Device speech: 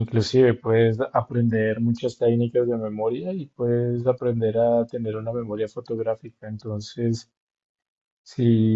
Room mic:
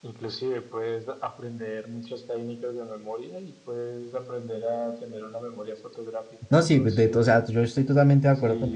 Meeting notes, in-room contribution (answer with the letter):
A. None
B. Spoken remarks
B